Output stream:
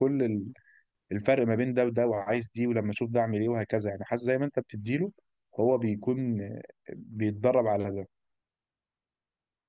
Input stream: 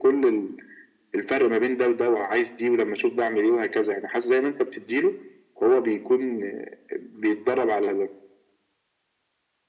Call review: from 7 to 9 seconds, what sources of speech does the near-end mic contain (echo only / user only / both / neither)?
echo only